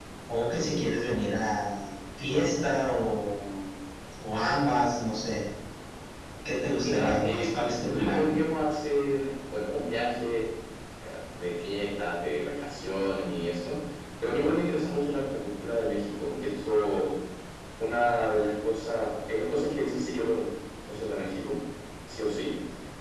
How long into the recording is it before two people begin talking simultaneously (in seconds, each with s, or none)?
6.8 s